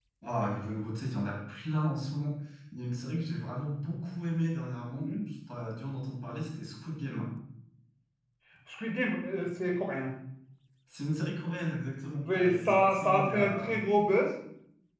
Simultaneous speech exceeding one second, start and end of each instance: 12.2-13.8

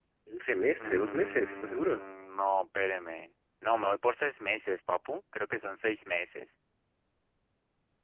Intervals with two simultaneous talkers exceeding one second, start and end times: 0.8-2.0

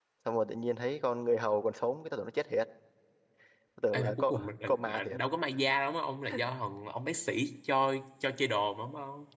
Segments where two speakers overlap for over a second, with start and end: 3.9-5.2

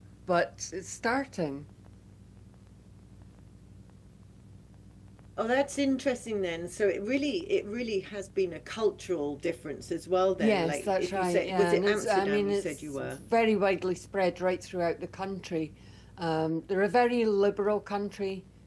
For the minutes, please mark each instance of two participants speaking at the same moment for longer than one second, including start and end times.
10.4-13.2

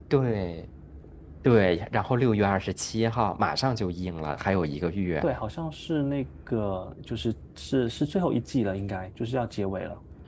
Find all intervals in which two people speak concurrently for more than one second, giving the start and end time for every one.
none

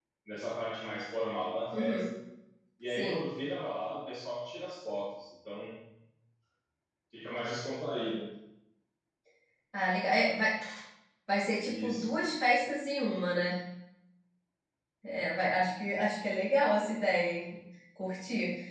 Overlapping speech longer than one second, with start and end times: none

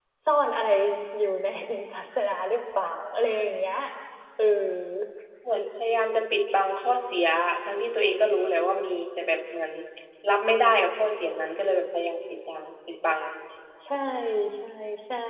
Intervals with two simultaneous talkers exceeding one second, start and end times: none

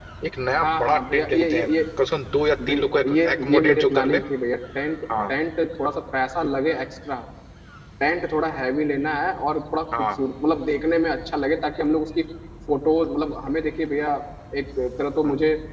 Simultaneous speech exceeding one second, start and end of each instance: 0.6-1.8, 2.7-4.2

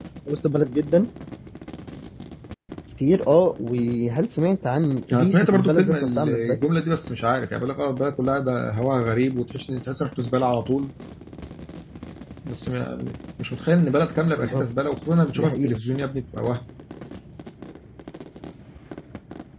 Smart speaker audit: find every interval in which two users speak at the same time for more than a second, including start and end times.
5.1-6.6

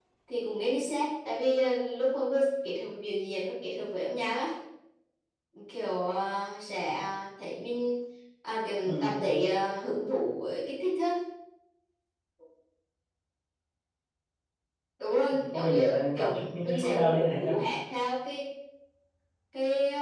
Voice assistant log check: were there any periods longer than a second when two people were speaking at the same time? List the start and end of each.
15.5-17.5

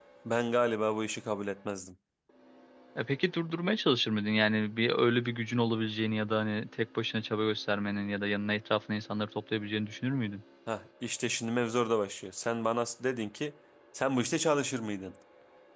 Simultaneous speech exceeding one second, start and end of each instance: none

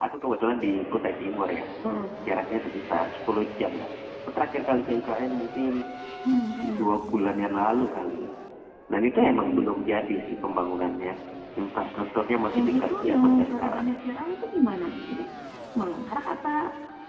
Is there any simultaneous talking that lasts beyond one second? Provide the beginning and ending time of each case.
12.6-13.9

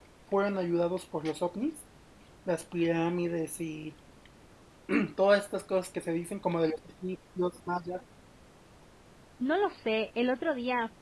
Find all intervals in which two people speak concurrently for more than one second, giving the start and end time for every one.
none

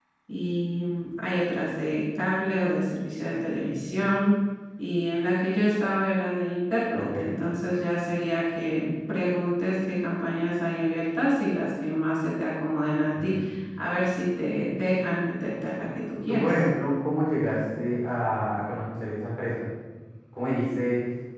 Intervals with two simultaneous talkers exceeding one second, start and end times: none

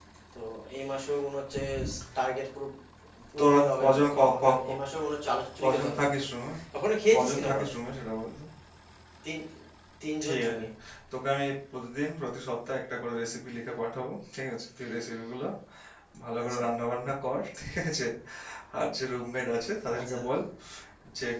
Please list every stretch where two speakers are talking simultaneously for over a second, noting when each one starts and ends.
3.4-4.8

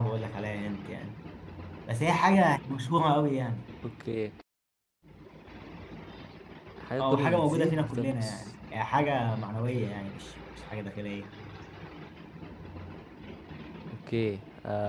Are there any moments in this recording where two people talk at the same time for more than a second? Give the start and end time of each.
7.0-8.4

